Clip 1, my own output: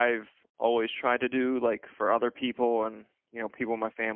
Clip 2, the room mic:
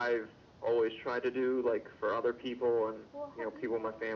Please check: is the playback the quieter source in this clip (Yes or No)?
No